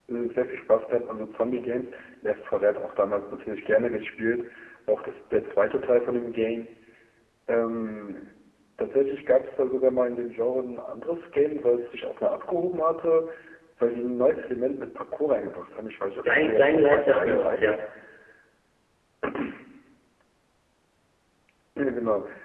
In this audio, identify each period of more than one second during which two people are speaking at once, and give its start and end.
16.4-17.7

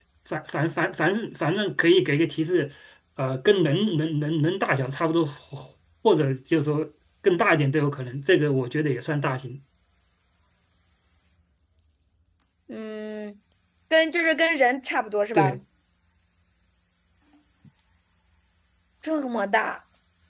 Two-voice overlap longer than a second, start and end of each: none

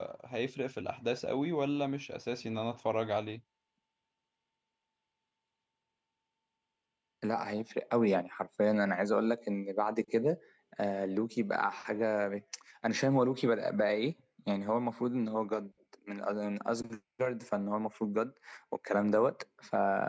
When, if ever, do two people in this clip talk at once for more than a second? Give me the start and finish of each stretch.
none

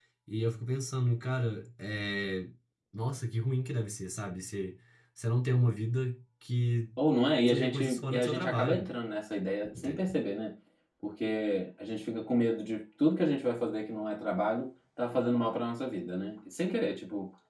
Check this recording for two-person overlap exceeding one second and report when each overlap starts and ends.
7.5-8.9

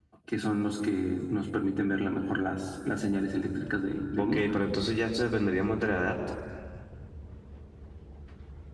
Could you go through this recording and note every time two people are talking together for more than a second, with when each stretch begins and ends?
none

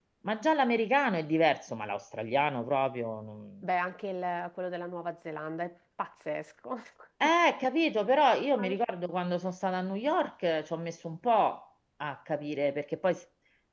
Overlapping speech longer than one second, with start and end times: none

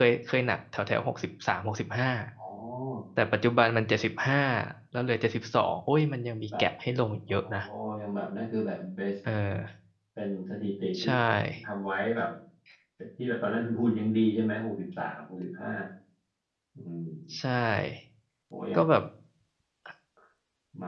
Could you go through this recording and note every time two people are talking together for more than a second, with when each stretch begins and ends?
none

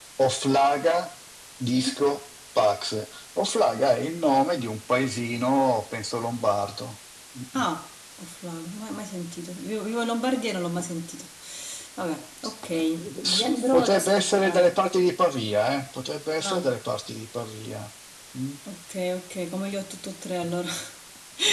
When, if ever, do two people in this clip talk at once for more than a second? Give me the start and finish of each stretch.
13.2-14.6

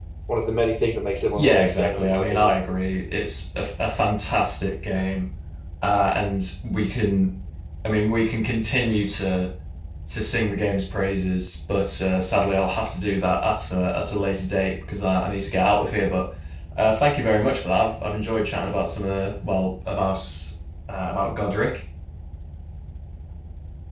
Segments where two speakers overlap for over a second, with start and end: 1.3-2.5

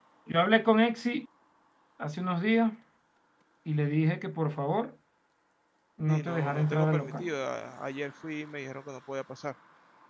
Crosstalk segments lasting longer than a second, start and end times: 6.1-7.3

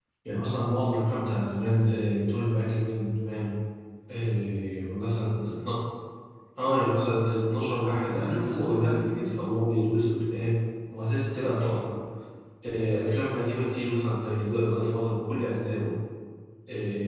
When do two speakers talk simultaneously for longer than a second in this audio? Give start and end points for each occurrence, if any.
7.8-9.4

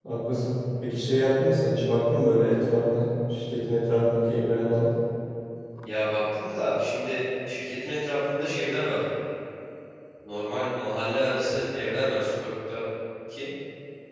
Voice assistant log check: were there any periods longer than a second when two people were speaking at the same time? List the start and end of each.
none

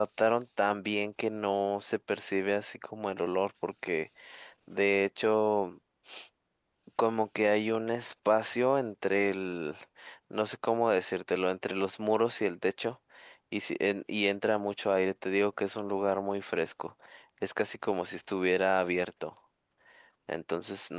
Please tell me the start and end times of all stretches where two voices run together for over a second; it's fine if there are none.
none

